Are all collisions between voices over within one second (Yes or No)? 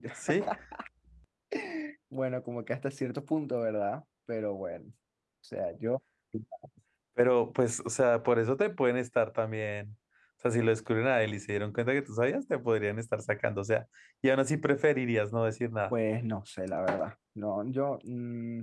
Yes